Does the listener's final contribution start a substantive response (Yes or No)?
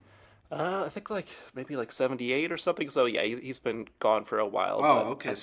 Yes